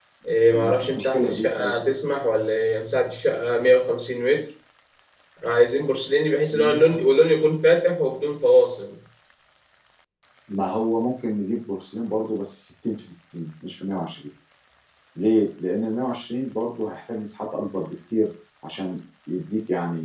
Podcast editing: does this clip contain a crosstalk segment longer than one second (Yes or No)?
Yes